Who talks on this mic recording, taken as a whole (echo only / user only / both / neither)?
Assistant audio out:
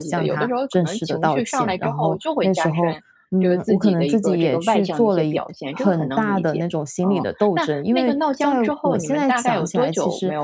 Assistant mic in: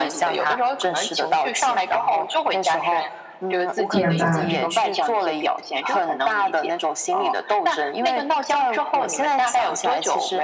both